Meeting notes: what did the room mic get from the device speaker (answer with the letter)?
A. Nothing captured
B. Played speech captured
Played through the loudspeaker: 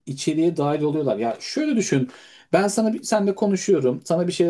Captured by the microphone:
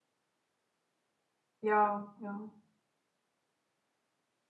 A